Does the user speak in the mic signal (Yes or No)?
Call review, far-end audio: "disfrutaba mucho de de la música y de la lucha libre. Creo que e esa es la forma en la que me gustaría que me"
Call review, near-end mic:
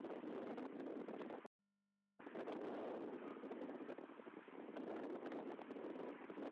No